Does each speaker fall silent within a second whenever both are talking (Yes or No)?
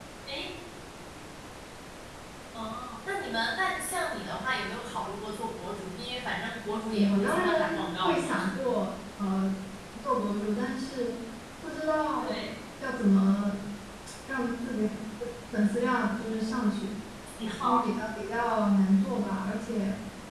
No